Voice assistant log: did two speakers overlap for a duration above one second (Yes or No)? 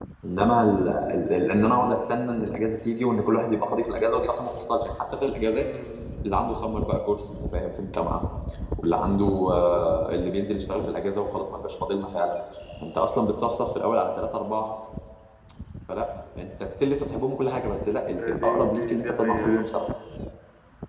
Yes